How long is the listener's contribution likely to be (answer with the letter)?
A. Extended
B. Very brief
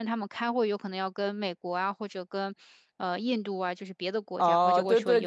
A